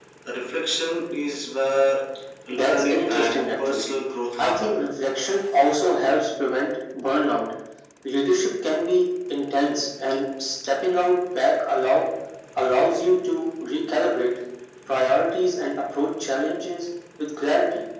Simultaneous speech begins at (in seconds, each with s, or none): 2.5 s